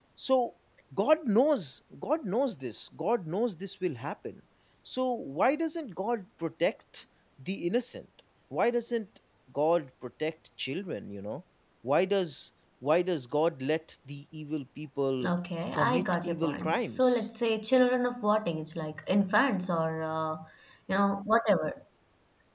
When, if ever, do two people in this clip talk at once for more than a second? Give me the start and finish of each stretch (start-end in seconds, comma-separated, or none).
15.8-17.3